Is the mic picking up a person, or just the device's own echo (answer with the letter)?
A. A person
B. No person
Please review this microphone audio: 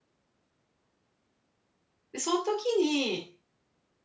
A